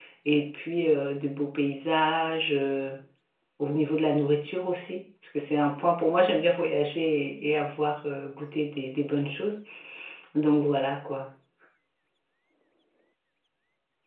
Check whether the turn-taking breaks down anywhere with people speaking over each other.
No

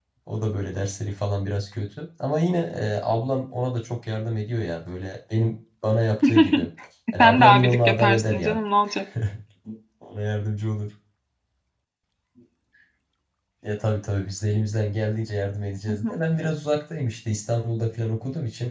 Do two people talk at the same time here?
Yes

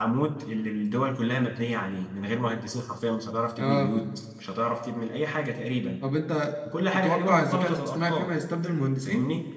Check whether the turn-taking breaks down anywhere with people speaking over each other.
Yes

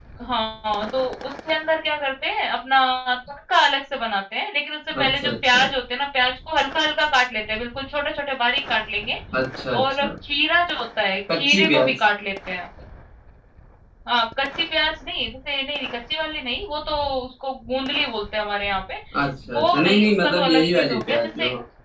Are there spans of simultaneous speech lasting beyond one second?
Yes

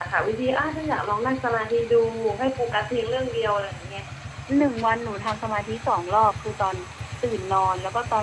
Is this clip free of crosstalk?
Yes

